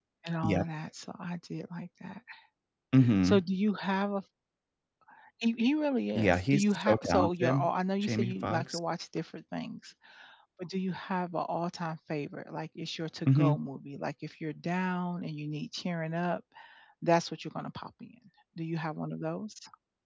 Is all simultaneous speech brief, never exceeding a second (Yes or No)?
No